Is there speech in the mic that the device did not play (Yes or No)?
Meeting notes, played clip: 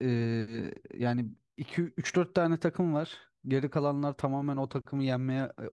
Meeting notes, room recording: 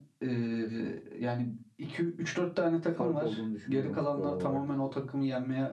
Yes